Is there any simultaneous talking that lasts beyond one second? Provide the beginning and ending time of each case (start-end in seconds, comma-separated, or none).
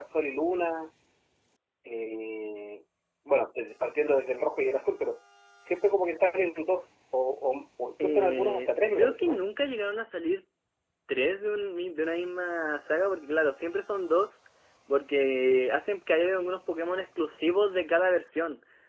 8.0-9.4